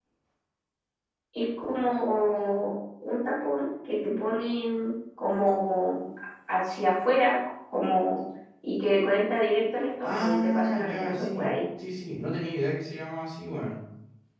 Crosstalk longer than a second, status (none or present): present